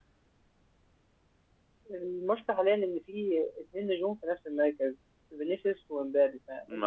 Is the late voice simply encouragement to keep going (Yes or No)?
Yes